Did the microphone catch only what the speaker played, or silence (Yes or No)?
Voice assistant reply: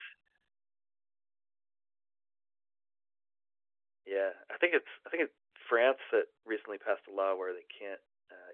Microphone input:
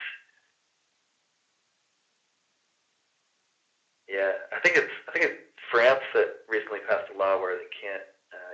Yes